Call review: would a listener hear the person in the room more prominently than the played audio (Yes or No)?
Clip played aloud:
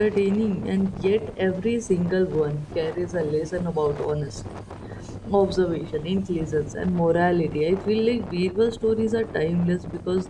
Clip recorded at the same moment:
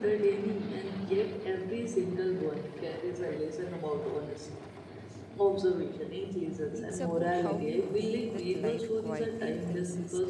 No